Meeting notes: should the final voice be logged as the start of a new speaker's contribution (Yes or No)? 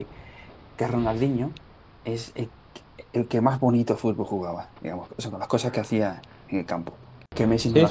Yes